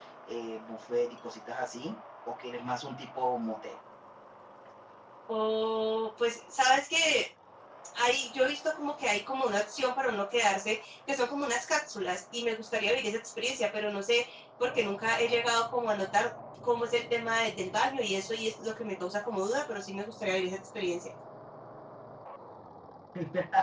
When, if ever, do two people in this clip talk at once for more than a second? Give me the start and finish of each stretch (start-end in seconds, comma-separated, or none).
none